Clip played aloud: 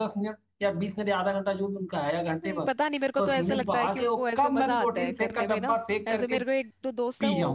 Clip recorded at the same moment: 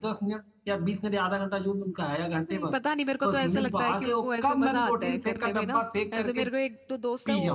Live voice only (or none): none